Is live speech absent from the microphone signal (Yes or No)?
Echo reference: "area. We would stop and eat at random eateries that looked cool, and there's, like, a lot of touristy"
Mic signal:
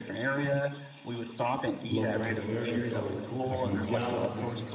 No